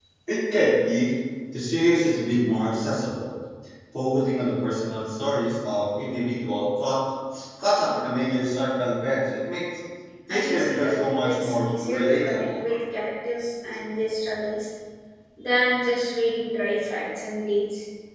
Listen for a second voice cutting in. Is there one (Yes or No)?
Yes